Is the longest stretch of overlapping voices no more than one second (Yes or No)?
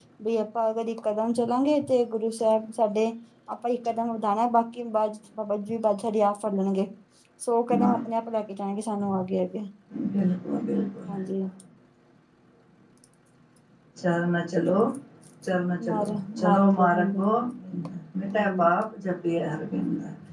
No